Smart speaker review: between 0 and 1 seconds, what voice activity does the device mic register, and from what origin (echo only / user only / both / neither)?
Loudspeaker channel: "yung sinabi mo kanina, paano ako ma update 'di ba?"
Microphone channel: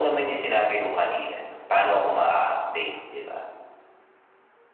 echo only